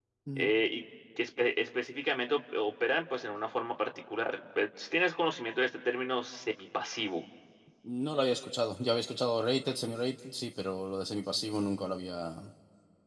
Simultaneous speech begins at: none

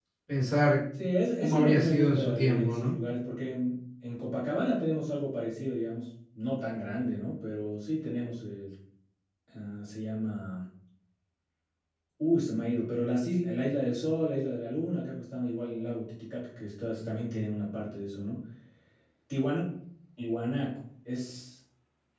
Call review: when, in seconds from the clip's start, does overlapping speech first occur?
1 s

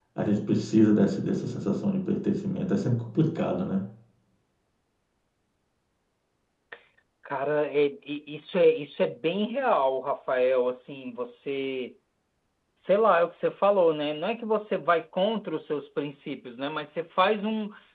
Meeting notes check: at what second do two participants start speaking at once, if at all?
none

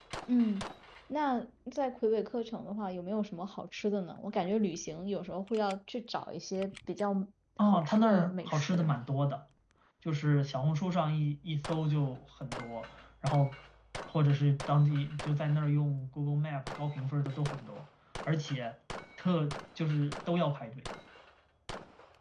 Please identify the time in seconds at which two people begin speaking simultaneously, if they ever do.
8 s

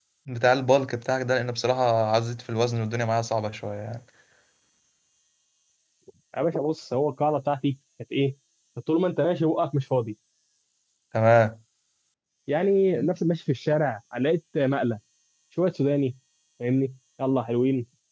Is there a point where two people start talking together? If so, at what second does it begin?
none

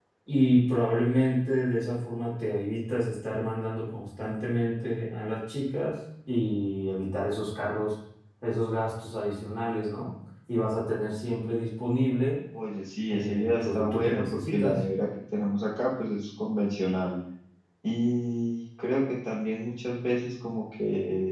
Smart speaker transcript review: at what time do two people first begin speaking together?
13 s

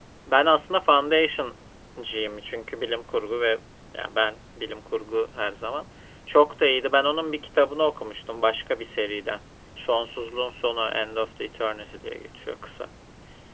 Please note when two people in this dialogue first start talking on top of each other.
none

